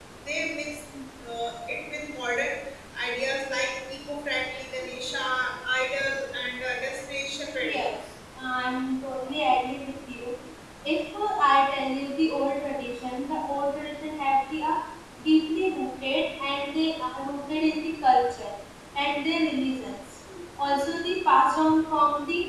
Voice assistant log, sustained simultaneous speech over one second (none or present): none